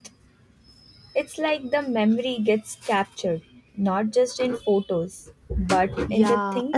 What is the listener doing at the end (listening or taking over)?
taking over